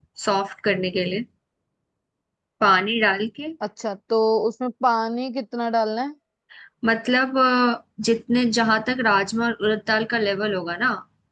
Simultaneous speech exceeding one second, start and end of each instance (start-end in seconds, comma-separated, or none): none